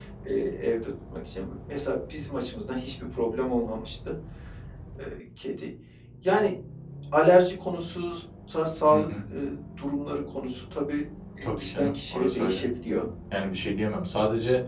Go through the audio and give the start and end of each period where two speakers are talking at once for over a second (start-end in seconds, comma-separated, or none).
11.4-12.6